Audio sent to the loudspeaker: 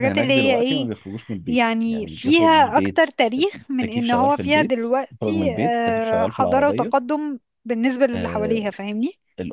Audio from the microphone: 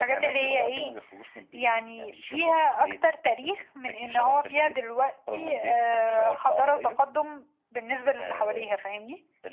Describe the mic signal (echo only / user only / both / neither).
echo only